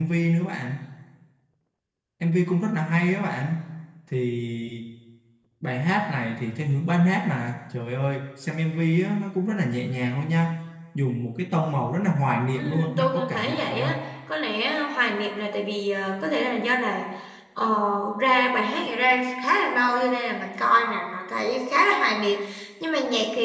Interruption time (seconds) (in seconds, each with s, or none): 12.6 s